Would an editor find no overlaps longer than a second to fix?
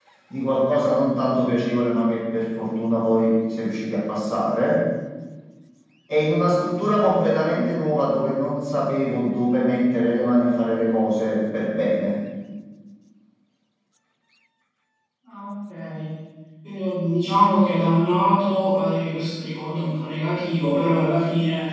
Yes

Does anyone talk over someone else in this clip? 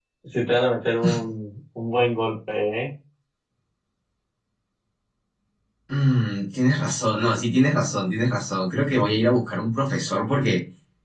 No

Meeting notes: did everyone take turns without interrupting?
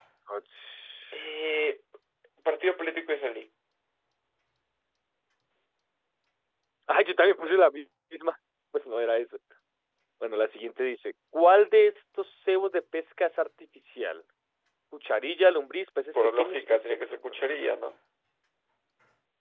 No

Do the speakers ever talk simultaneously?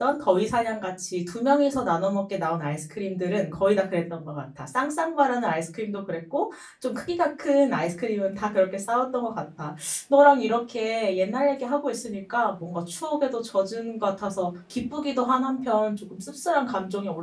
No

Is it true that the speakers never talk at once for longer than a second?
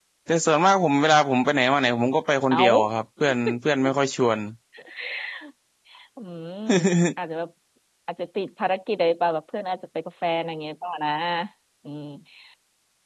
Yes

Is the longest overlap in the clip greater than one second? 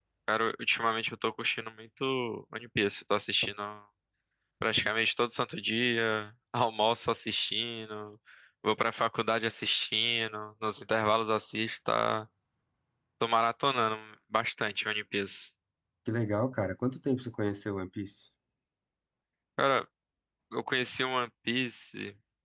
No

